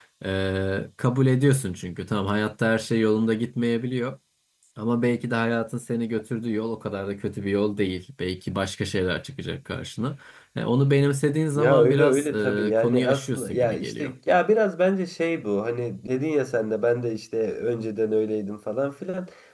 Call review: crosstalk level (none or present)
present